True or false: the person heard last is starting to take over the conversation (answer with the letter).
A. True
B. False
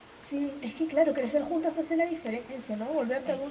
B